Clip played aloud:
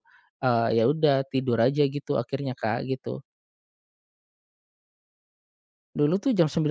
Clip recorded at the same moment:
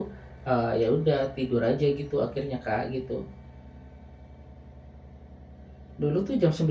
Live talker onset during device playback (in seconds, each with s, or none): none